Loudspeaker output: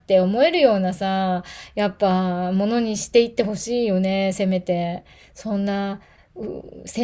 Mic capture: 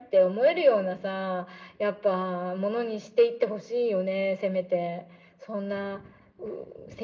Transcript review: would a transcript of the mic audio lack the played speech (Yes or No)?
No